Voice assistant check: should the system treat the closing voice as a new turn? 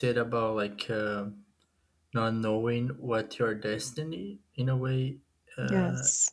No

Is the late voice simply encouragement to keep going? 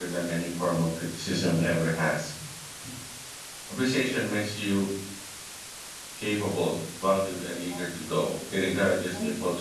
Yes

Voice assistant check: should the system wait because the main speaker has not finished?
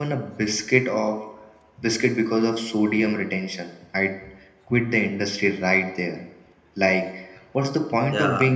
Yes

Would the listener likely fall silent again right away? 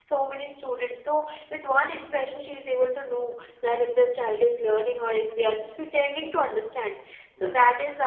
Yes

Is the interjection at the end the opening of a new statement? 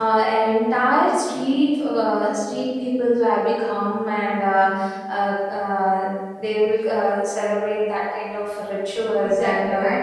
Yes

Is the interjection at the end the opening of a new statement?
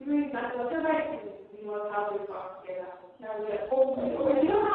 No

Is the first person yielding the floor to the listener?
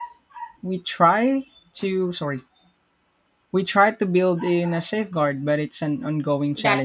Yes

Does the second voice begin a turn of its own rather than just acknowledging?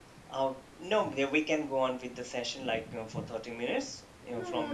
Yes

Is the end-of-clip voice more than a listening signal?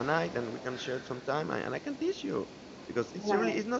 No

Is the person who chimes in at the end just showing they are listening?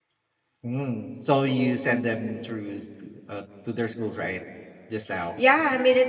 No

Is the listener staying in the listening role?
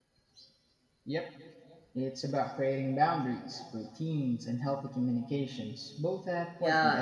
No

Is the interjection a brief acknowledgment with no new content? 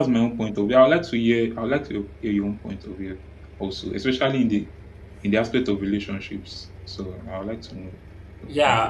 No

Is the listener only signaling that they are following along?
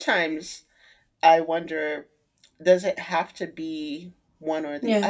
Yes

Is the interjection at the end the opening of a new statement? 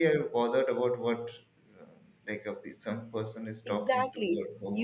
Yes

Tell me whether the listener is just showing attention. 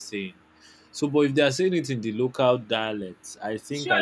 No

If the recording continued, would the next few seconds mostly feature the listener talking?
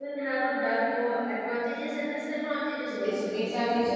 Yes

